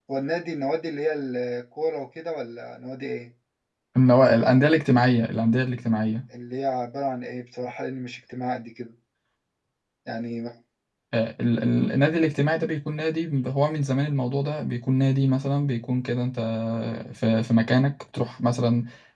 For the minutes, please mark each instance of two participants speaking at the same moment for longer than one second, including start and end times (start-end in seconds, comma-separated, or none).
none